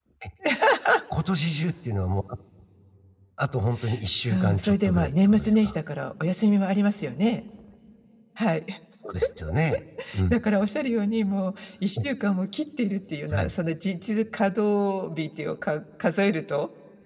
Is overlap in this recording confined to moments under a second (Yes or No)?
No